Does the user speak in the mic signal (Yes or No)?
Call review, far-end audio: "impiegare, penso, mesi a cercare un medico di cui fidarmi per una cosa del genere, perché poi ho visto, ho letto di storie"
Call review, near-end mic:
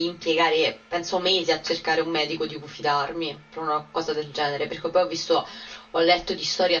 No